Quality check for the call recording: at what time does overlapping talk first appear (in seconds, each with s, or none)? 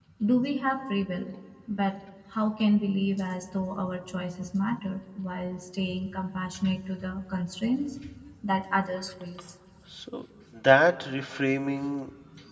none